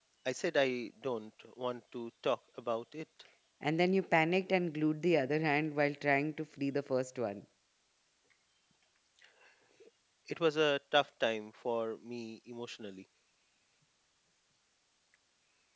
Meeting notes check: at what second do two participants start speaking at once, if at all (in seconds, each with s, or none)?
none